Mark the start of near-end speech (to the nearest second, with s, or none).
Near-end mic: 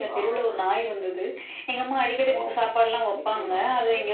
none